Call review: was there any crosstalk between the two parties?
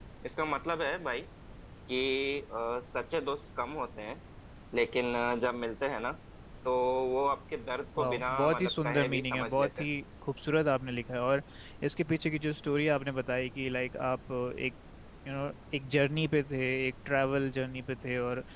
Yes, from 8.0 s

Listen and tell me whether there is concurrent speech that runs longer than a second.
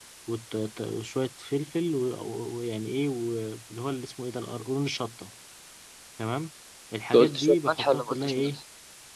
Yes, from 7.1 s

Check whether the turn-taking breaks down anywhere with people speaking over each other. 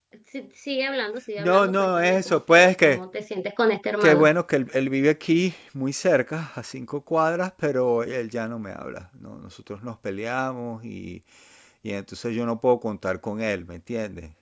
Yes, from 1.4 s

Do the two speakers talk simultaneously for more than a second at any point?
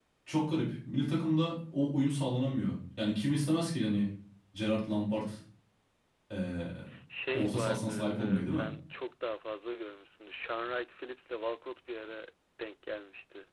Yes, from 7.3 s

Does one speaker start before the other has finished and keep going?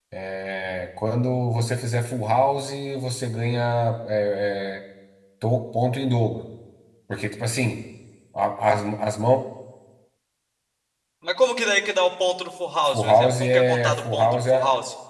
Yes, from 12.8 s

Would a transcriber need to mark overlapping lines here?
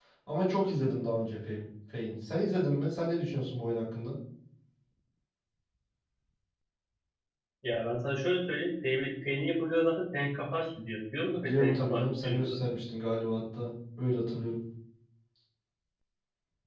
Yes, from 11.3 s

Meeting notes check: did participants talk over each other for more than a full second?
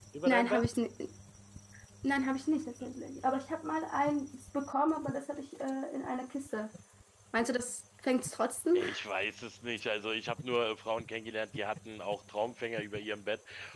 No

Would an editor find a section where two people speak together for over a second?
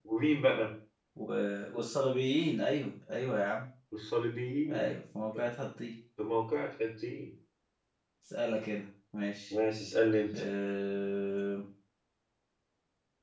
No

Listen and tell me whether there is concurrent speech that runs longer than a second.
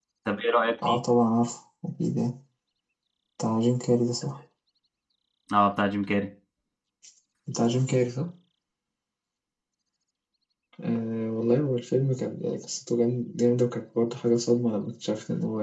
No

